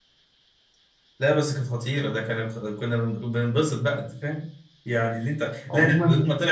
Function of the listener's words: listening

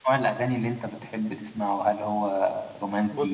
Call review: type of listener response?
taking over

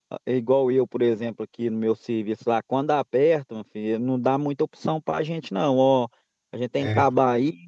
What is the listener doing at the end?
listening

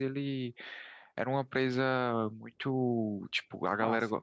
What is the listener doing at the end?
listening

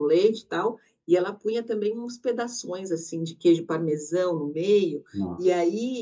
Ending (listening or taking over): listening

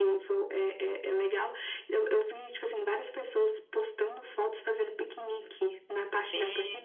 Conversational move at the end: taking over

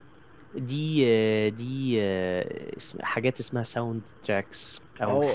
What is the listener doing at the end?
taking over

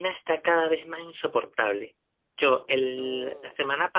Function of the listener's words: listening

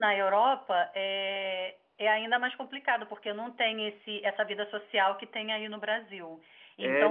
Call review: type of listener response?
listening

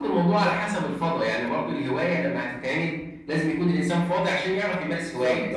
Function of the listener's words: taking over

